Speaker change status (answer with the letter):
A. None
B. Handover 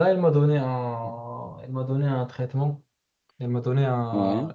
A